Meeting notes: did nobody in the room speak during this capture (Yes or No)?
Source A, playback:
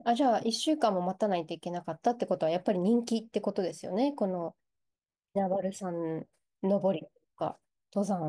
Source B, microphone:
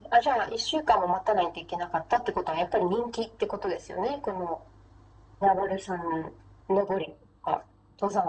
Yes